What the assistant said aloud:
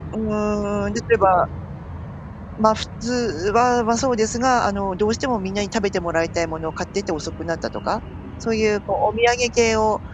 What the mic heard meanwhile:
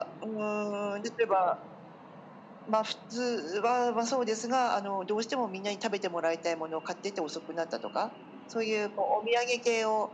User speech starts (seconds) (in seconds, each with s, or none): none